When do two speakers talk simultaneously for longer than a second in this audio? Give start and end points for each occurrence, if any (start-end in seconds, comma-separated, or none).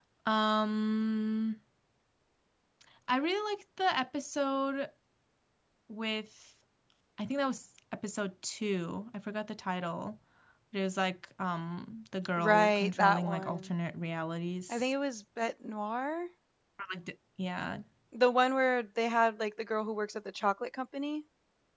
12.4-13.7